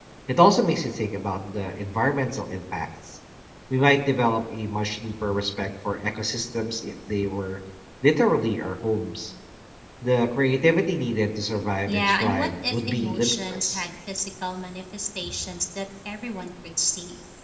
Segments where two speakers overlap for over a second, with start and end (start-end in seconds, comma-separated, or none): 11.9-13.8